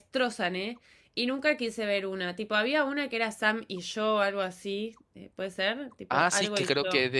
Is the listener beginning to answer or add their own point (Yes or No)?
Yes